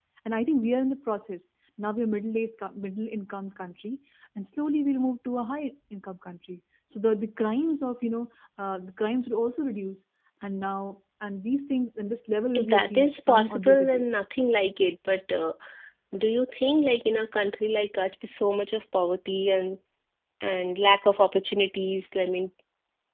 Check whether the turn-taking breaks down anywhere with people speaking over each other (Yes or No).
Yes